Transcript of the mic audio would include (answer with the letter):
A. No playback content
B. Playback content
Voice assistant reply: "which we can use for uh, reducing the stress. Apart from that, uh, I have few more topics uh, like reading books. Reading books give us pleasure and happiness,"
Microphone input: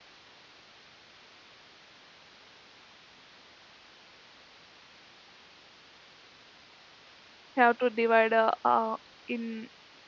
A